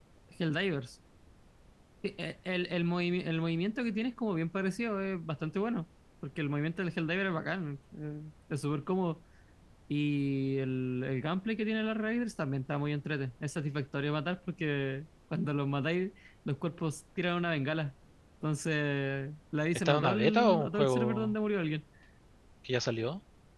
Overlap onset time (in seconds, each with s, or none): 19.8 s